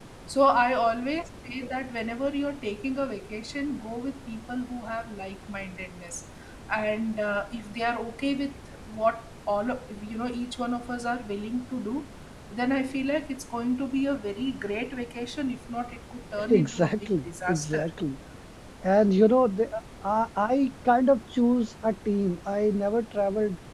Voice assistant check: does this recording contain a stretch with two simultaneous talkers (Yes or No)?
Yes